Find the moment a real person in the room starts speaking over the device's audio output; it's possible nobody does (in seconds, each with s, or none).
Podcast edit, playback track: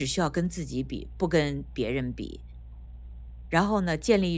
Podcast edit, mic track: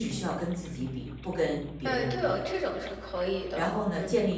1.8 s